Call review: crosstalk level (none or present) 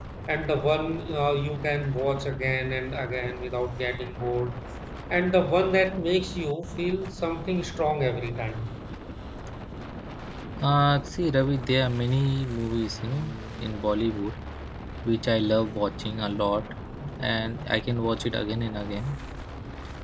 none